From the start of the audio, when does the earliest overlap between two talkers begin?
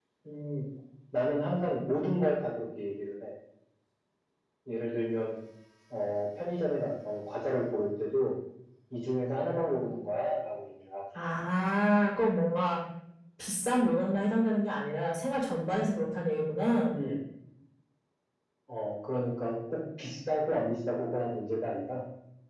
none

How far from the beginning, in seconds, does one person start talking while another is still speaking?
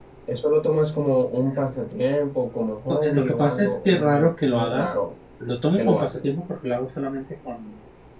2.9 s

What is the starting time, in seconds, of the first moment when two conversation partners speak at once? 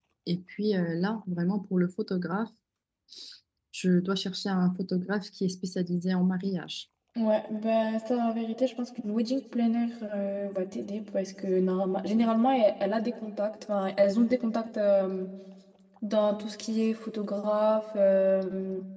none

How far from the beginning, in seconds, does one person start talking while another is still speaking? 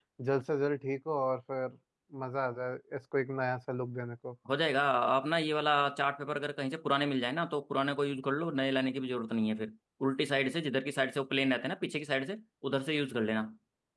none

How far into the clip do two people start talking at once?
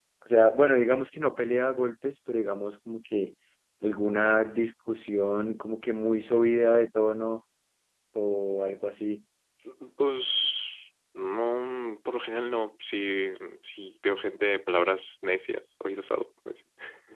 none

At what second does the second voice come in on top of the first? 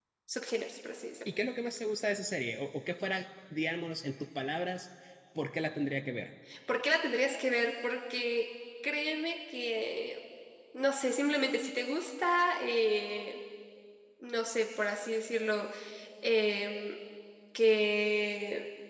none

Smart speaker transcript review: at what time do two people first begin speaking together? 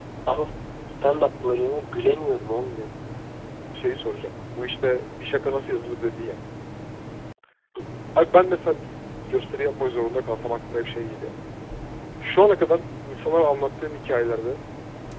none

